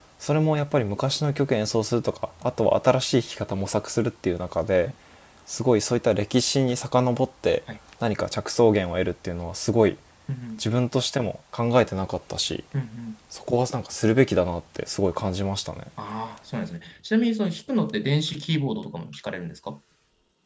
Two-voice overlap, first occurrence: none

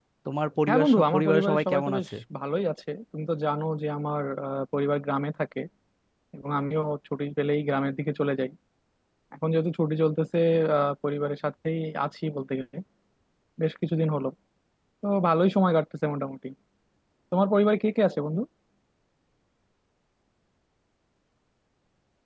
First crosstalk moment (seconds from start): 1 s

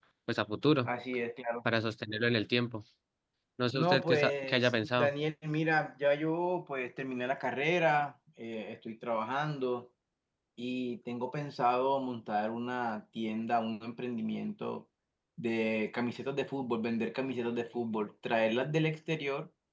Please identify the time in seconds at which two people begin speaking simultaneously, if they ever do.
4 s

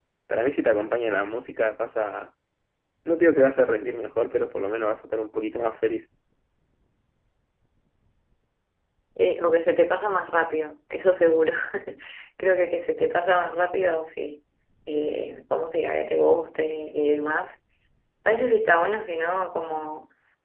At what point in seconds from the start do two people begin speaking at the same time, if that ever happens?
none

